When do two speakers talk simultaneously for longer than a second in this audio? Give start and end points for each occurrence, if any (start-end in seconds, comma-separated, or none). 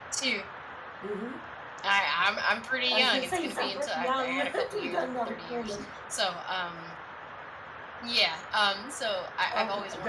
2.9-5.8